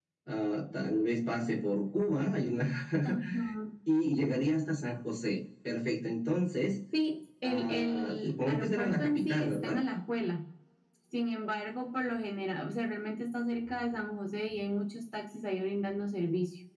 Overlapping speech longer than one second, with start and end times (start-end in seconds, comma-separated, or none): 7.4-9.8